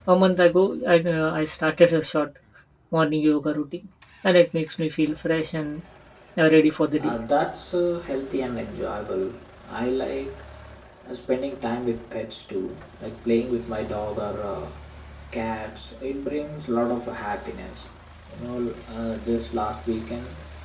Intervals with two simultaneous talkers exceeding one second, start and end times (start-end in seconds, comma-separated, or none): none